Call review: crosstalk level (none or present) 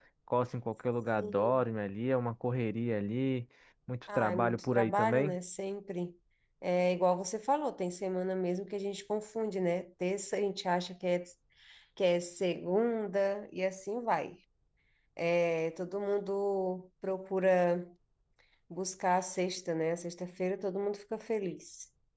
present